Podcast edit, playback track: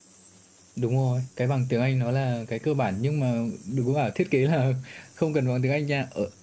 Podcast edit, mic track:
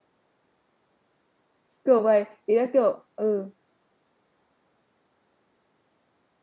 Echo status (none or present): none